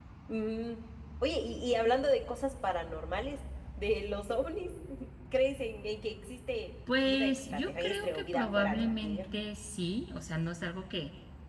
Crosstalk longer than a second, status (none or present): present